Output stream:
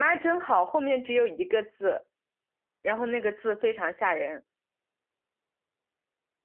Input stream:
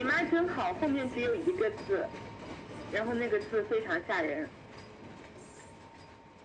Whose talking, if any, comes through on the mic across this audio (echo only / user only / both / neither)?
echo only